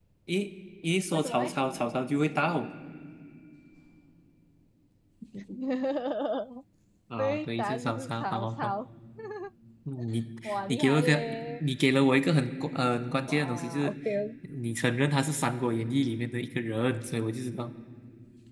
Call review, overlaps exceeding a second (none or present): present